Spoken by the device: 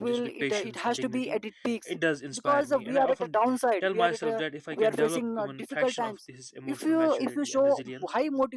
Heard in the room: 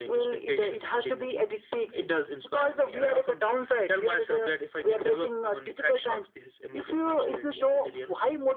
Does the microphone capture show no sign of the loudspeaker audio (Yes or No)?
No